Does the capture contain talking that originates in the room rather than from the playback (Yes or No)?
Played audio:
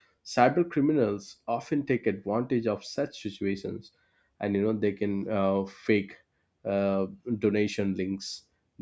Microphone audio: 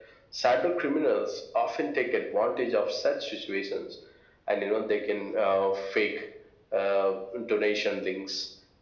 No